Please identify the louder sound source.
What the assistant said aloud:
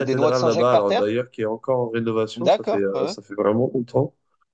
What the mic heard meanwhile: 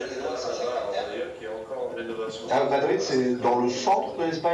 user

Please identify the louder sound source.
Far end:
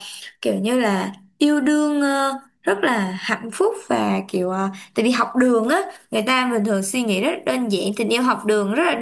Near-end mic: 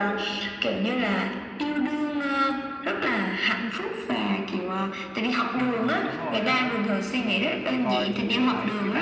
echo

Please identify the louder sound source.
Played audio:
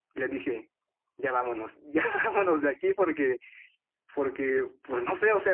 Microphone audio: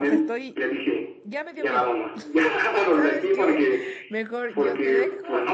echo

